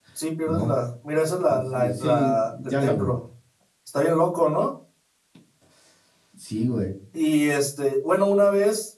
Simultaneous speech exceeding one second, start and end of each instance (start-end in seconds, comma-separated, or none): 1.5-3.2